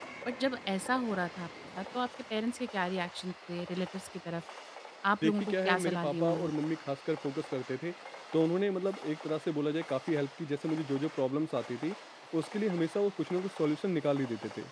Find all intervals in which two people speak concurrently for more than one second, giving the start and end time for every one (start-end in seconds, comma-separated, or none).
5.2-6.5